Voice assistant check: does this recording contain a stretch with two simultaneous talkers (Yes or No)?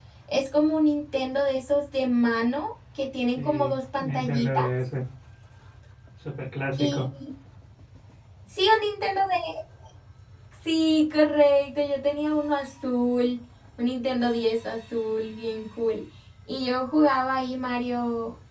Yes